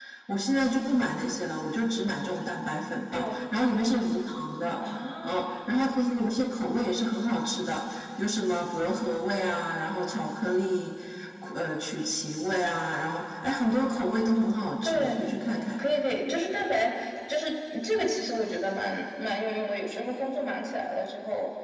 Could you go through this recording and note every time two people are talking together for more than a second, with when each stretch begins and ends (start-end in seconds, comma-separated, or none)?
none